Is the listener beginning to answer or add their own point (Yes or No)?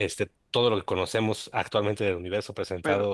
No